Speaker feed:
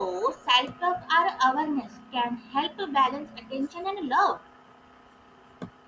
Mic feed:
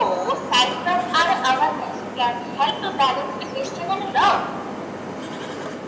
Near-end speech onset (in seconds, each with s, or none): none